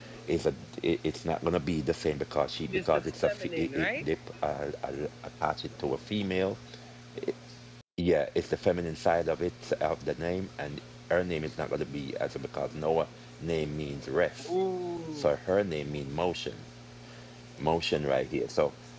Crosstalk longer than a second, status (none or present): present